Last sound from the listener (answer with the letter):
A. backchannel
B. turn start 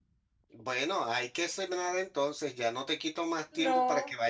A